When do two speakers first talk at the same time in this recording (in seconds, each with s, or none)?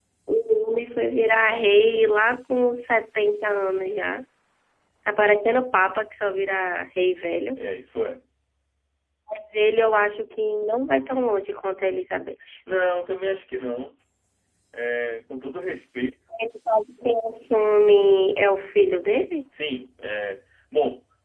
none